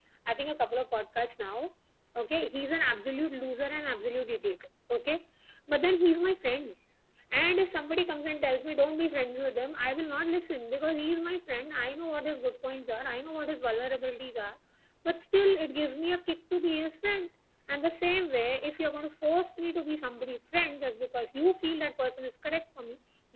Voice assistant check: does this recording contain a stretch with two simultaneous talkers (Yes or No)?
No